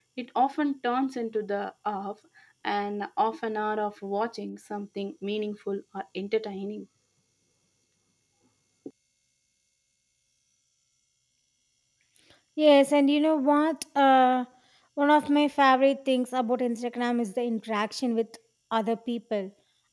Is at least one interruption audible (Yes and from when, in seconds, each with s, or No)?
No